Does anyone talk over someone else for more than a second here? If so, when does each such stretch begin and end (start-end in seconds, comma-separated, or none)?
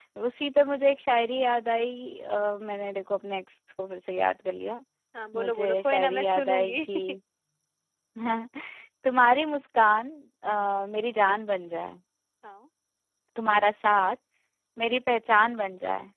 5.3-6.8